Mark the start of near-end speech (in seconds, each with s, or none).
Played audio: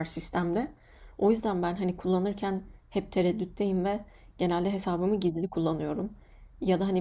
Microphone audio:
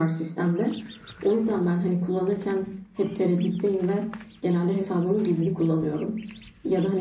none